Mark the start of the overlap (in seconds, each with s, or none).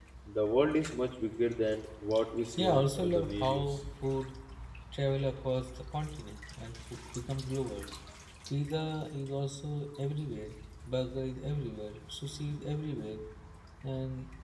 2.6 s